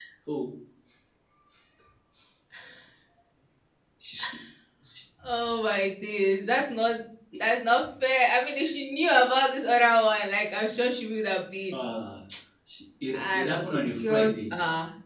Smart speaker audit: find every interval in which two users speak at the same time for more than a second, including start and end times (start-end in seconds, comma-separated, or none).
13.1-14.3